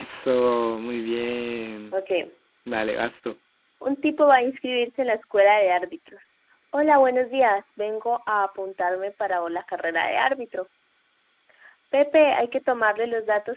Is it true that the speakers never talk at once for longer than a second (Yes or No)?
Yes